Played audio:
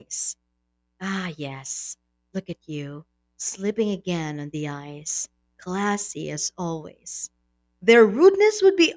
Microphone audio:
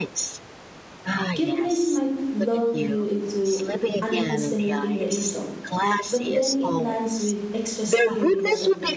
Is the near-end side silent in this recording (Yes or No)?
No